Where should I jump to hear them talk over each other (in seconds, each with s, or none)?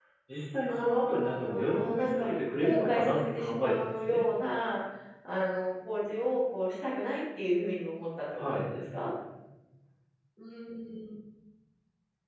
0.7 s